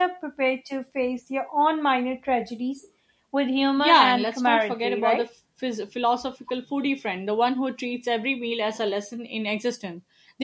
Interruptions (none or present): present